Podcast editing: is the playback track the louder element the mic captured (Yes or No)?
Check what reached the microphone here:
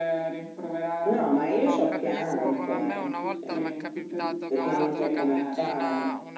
Yes